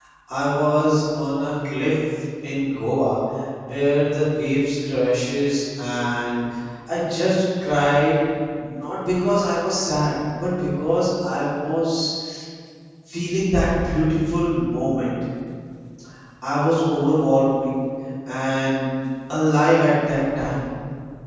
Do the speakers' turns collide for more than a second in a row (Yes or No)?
No